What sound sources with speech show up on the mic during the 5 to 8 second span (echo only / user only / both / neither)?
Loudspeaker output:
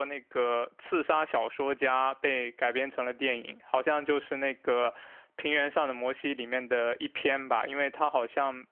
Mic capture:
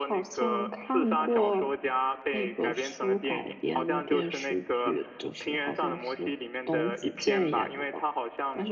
both